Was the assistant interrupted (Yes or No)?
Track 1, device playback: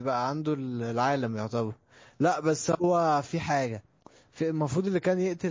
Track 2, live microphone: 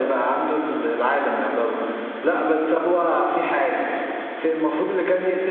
No